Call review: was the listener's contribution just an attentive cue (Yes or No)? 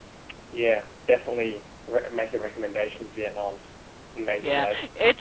No